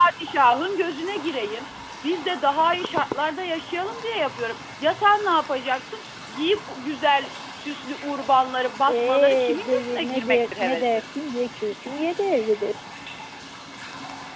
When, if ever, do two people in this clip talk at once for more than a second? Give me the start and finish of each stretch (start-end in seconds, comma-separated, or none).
8.9-11.0